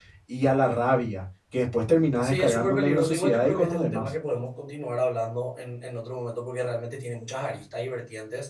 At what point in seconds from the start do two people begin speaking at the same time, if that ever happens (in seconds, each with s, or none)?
2.2 s